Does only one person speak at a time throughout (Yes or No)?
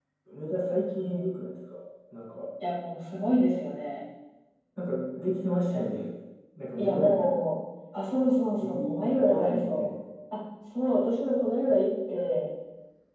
No